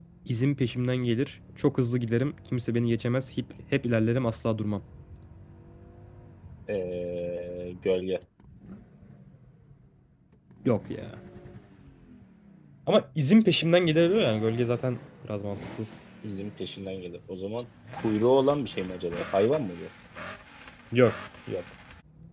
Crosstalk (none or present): none